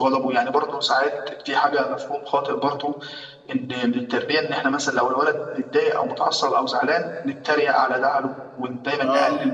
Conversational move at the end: listening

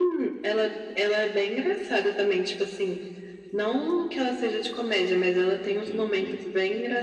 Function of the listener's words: listening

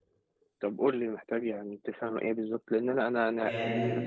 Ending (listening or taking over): listening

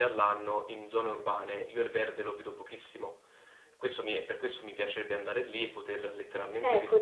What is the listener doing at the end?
taking over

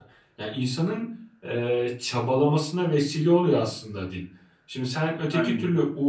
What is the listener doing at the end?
listening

